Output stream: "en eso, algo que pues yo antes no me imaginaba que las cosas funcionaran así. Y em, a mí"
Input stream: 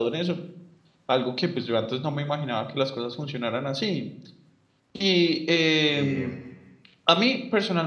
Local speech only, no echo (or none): Eh,